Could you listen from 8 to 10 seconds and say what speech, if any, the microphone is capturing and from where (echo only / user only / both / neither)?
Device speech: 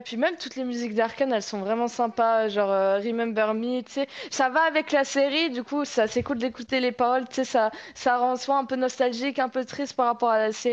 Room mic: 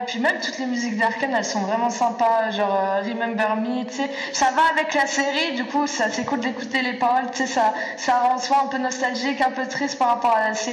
echo only